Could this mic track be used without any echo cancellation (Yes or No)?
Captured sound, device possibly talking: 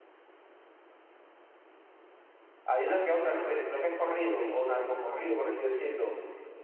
Yes